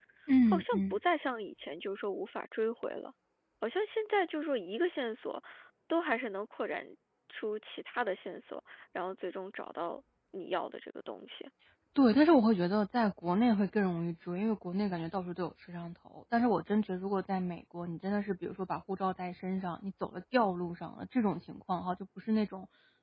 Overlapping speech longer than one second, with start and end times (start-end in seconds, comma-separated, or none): none